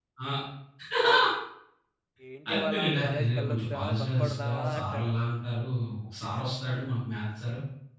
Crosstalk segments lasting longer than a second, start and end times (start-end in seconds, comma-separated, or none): 2.5-5.1